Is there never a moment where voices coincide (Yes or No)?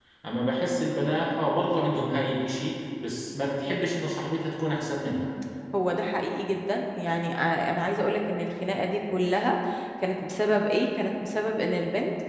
Yes